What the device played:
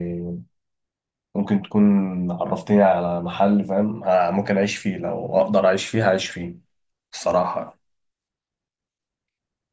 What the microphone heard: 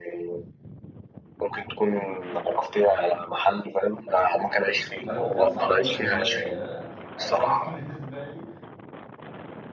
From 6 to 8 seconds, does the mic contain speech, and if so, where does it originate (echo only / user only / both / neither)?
both